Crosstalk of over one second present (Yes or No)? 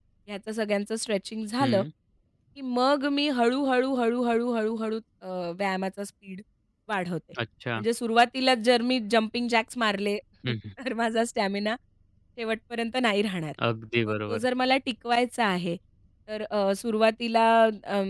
No